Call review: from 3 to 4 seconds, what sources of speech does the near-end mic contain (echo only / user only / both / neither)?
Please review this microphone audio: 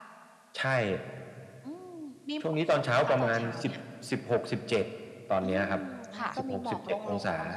echo only